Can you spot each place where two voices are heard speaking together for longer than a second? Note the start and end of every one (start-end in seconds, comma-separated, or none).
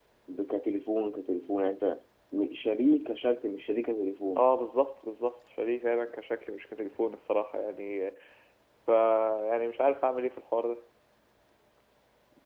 none